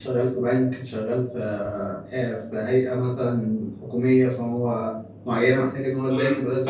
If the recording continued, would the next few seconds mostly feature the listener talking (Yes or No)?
Yes